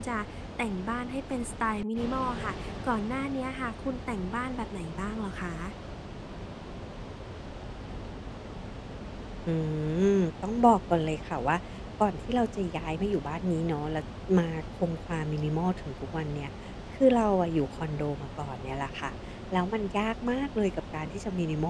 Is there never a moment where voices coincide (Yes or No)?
Yes